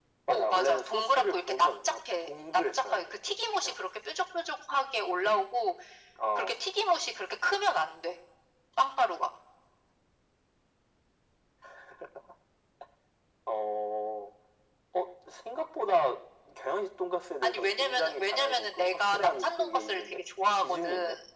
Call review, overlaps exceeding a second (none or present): present